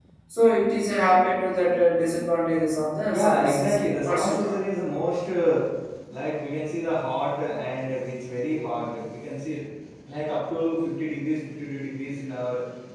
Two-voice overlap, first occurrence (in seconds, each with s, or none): 3.1 s